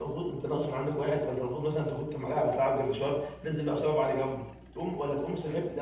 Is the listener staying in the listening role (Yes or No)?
Yes